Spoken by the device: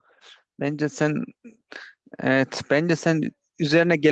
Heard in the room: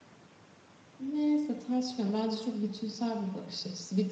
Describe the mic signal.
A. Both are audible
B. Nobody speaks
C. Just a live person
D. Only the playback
C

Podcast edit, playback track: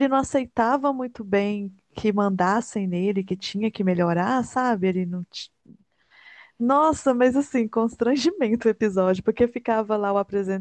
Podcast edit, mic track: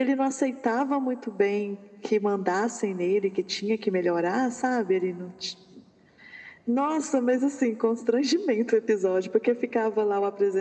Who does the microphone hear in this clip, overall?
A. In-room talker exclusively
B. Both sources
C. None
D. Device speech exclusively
D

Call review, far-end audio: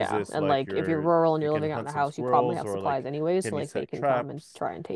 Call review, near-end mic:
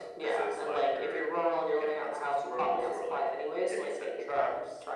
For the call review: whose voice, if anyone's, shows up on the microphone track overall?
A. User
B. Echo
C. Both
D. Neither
B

